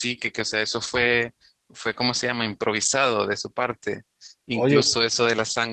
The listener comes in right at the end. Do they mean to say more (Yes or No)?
No